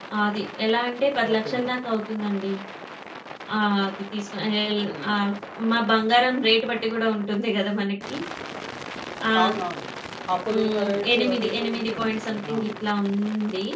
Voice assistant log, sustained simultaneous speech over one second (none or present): present